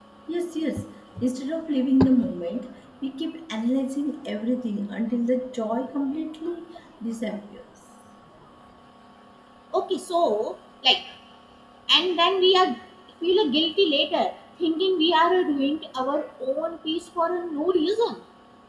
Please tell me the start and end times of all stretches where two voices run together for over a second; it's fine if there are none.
none

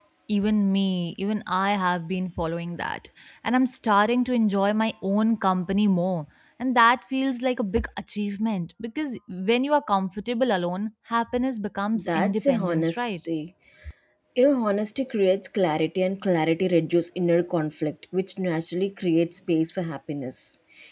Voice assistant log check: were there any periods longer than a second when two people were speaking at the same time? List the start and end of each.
12.0-13.2

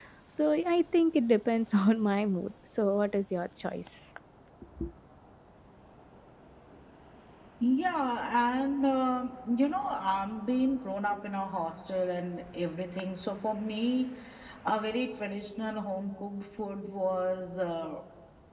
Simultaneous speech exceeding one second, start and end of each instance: none

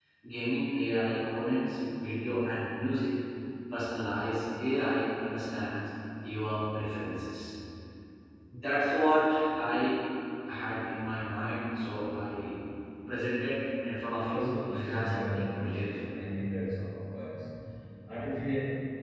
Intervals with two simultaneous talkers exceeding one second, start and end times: 14.2-16.0

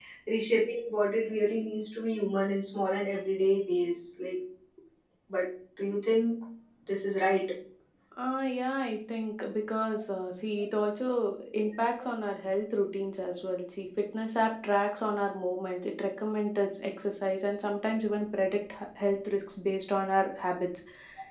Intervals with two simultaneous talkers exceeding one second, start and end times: none

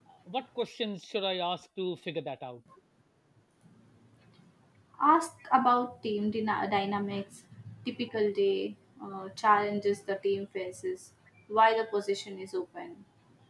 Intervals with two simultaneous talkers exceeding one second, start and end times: none

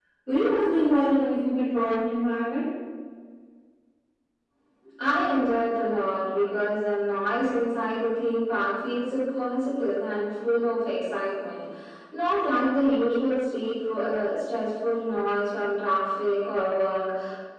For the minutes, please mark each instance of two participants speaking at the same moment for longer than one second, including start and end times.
none

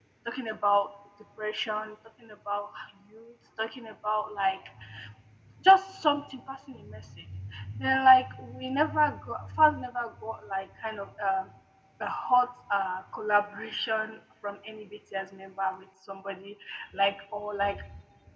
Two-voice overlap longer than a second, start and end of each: none

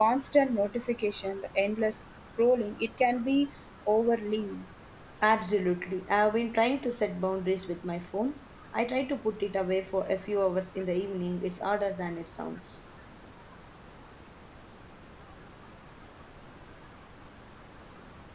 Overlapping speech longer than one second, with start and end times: none

